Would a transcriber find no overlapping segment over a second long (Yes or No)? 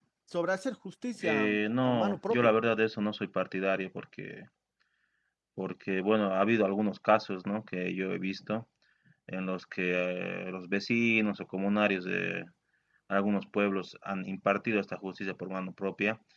No